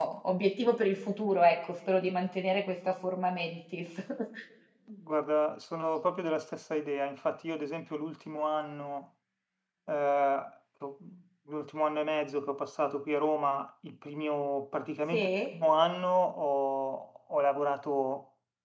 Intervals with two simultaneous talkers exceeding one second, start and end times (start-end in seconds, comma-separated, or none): none